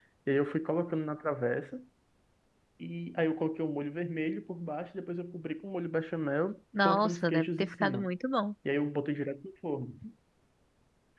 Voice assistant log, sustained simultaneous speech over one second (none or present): present